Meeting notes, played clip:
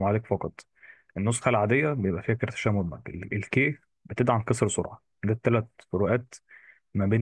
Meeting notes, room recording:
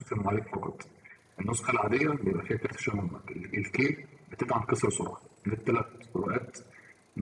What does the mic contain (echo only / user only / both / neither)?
echo only